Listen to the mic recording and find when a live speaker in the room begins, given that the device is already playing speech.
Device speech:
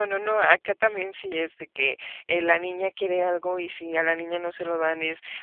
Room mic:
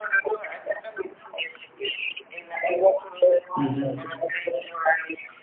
4 s

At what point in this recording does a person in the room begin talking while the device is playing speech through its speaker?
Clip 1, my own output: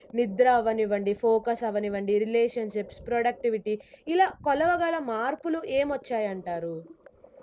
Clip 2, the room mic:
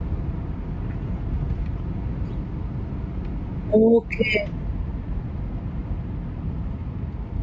4 s

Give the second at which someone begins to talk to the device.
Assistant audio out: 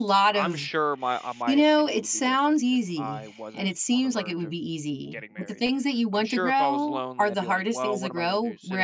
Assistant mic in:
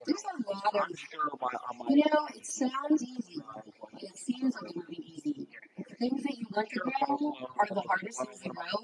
none

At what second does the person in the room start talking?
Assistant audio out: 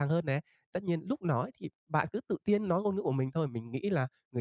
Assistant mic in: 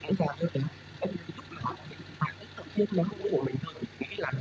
none

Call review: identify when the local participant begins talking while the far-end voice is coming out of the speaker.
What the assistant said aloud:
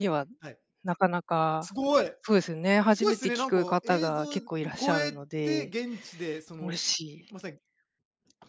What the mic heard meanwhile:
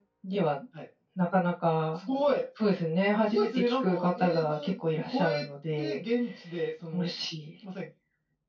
none

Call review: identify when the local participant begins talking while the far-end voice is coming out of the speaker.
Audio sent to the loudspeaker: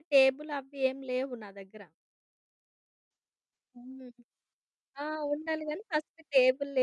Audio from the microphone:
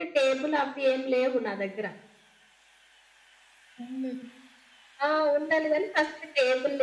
none

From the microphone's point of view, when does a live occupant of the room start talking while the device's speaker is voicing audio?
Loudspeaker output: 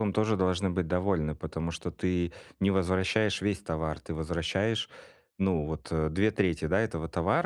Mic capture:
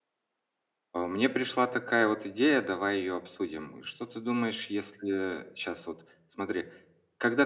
1 s

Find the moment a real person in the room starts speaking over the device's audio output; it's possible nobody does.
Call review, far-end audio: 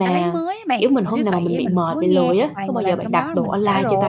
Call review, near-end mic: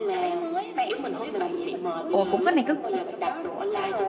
2 s

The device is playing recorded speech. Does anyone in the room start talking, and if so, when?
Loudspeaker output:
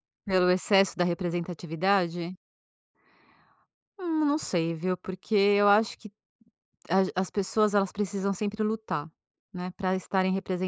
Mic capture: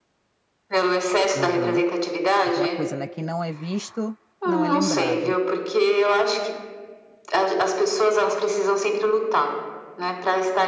1 s

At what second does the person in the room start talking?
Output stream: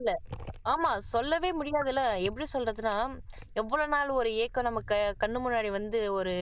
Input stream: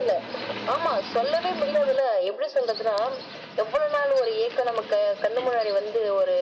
none

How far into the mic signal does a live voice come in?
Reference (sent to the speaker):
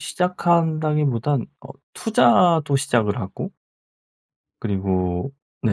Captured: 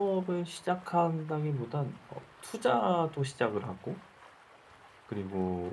none

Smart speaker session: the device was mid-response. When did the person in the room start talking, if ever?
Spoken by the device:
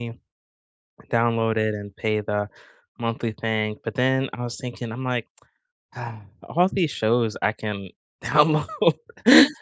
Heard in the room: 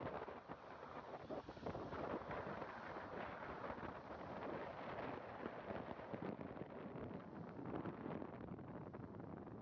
none

